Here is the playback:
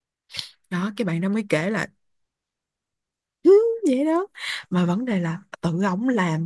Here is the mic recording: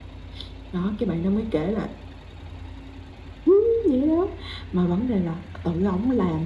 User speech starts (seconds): none

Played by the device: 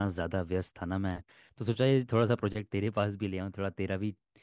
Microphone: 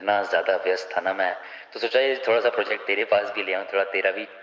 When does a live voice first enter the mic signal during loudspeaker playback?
none

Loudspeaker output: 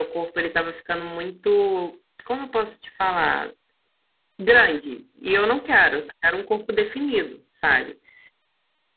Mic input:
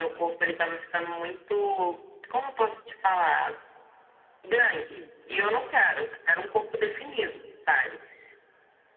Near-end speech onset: none

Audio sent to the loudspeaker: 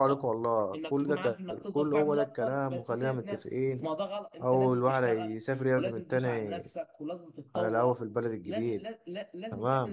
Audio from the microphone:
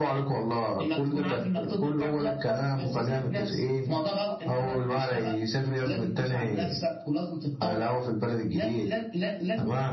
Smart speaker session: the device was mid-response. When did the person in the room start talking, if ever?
none

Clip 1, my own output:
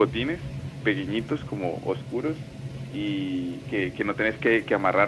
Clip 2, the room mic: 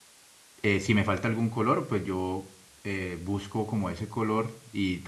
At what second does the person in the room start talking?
0.6 s

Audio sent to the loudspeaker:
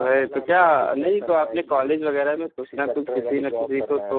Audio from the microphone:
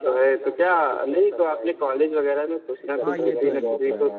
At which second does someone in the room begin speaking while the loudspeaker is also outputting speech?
3.0 s

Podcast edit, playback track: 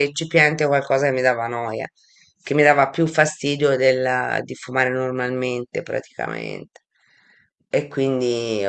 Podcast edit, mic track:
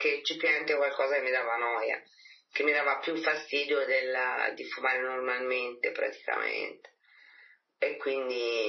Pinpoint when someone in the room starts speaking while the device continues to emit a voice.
none

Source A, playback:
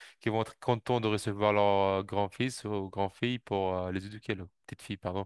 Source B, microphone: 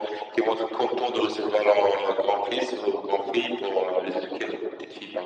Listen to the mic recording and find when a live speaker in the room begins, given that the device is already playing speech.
none

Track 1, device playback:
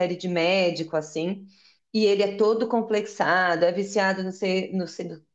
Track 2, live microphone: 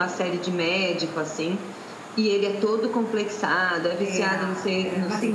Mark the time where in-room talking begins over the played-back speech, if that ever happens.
4.0 s

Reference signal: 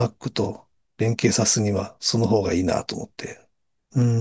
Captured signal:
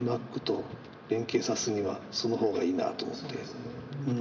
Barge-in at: 3.1 s

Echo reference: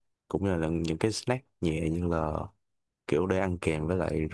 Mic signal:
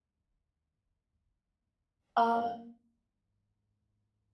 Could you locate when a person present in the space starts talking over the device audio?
2.1 s

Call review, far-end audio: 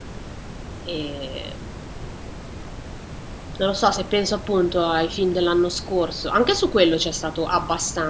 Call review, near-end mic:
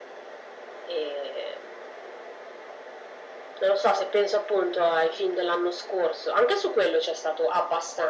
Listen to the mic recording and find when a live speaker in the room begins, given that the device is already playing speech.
none

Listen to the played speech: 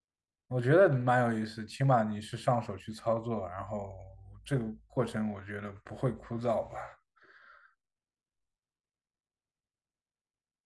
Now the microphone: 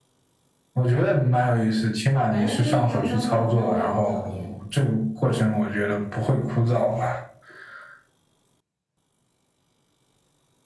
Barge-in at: 2.3 s

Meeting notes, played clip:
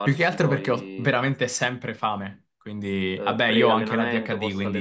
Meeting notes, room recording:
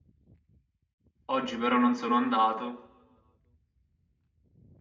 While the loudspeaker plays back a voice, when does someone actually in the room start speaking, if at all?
1.3 s

